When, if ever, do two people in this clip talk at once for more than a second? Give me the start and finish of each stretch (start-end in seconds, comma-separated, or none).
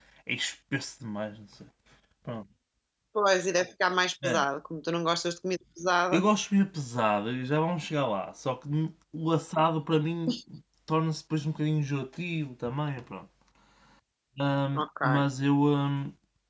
none